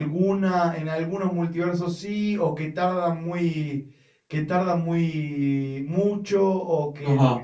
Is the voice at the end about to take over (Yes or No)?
Yes